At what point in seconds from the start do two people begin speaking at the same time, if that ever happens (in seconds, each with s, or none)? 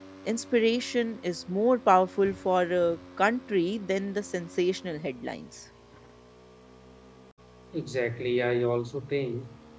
none